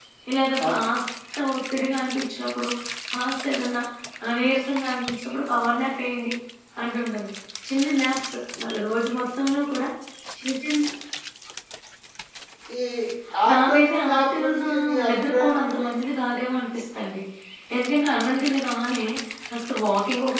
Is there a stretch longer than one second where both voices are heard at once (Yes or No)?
Yes